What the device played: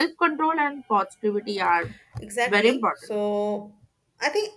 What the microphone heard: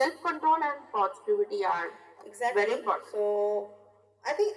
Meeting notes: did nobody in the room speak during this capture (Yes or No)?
Yes